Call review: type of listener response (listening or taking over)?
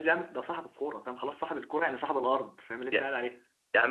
taking over